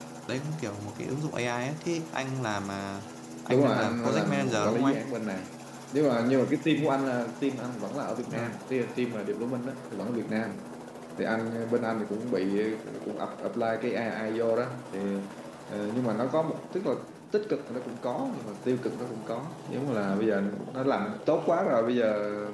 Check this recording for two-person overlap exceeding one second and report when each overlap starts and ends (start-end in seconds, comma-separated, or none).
3.5-5.0